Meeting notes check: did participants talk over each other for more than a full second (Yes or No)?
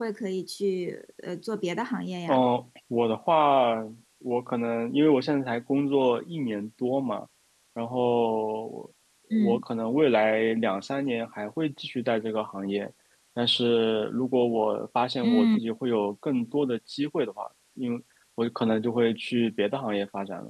No